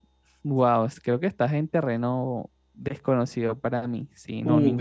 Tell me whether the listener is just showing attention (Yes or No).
No